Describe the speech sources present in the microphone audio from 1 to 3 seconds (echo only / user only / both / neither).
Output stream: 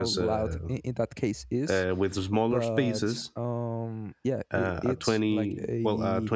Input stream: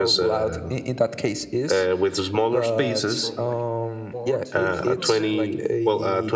echo only